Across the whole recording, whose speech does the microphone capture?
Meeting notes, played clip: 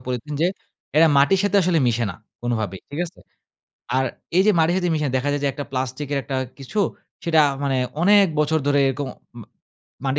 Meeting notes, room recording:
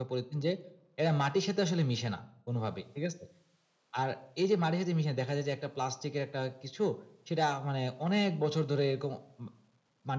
echo only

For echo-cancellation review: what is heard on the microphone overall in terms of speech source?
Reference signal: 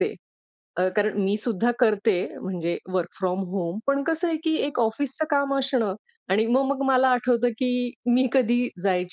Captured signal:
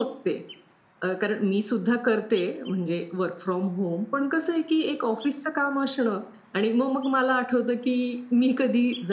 echo only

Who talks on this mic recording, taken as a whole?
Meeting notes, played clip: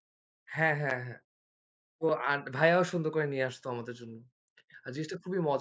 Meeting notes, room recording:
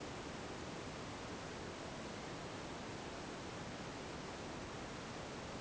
neither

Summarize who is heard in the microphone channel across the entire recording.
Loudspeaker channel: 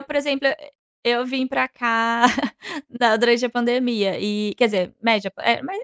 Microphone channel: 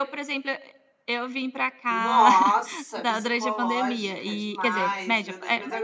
both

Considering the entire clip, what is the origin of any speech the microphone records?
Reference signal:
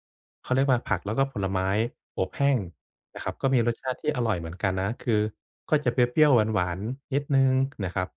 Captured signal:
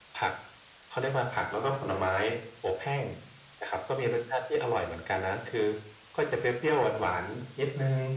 echo only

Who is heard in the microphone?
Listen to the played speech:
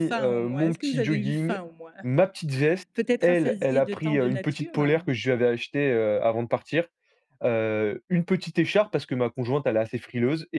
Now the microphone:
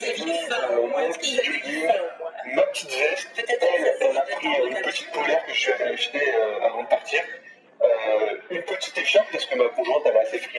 echo only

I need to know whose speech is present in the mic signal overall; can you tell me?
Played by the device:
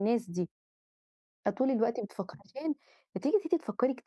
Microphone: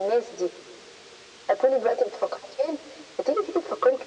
echo only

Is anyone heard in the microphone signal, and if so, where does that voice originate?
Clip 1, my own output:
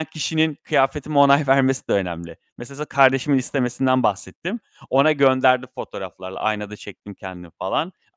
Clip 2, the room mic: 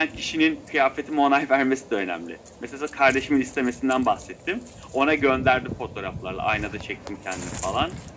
echo only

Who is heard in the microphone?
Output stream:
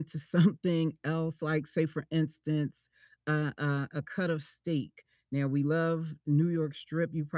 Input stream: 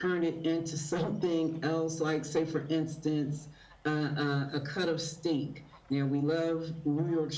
echo only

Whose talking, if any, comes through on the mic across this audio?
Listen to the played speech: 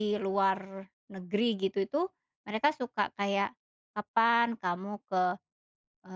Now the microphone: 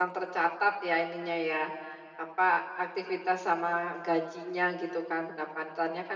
user only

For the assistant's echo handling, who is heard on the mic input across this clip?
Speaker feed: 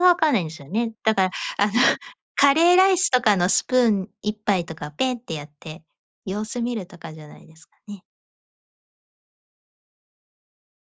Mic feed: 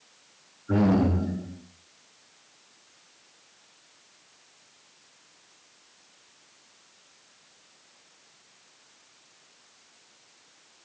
user only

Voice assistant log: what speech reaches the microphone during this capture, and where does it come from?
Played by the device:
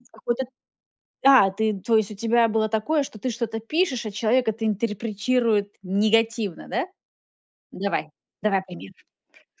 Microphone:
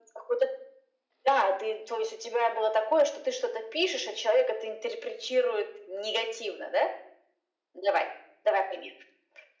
echo only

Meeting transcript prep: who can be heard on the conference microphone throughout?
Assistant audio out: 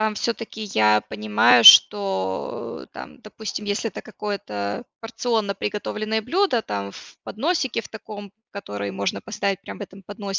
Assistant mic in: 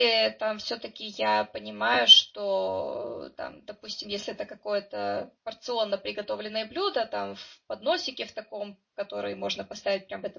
echo only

